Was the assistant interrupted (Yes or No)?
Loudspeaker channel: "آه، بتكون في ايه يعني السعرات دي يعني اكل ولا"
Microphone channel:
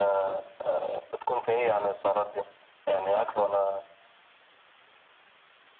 No